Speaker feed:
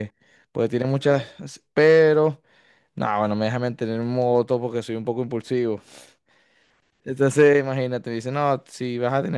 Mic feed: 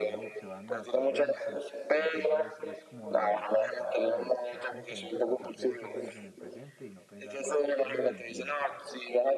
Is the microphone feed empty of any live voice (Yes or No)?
No